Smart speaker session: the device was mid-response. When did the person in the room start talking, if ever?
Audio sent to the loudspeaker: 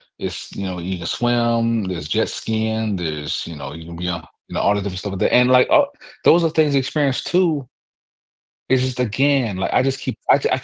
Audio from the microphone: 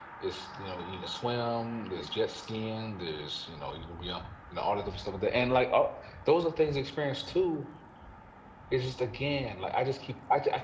none

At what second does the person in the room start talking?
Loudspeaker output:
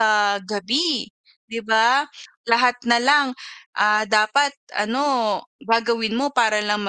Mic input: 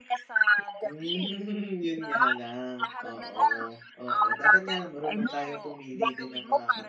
0.8 s

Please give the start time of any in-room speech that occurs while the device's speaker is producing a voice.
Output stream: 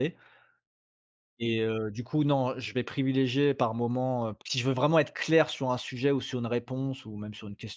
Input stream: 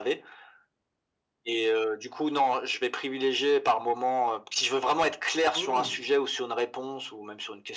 5.5 s

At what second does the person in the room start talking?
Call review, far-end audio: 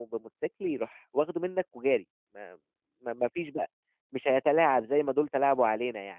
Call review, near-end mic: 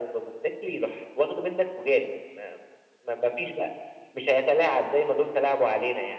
none

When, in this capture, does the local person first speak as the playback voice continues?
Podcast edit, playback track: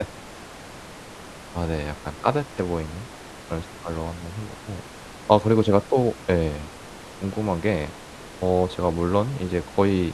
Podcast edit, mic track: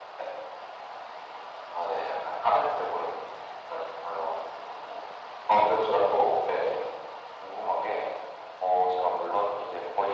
none

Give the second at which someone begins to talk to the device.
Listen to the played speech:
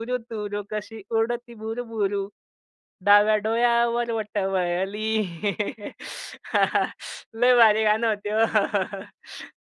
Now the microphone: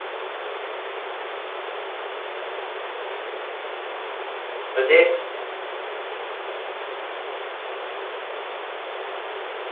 4.7 s

